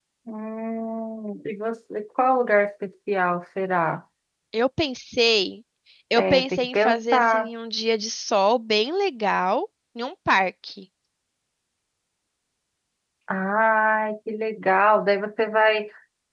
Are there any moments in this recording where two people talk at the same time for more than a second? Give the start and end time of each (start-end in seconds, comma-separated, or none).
6.2-7.5